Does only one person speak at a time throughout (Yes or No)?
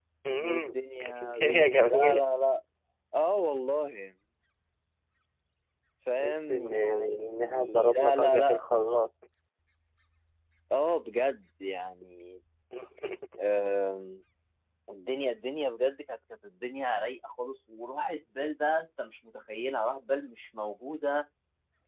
No